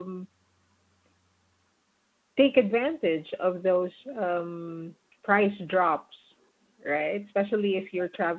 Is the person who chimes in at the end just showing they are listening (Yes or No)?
Yes